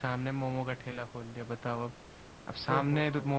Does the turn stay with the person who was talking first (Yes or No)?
Yes